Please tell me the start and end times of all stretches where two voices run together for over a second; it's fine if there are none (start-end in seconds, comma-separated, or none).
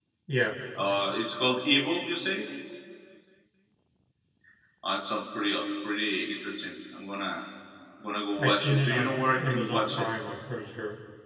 8.4-10.1